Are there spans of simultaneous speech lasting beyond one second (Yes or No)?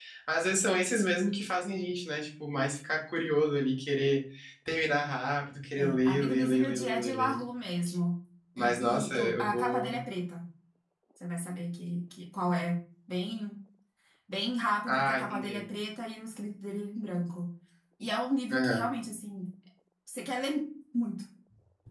Yes